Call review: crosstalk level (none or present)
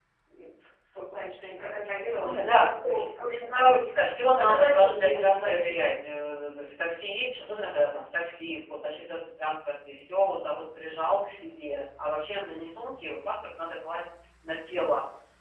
present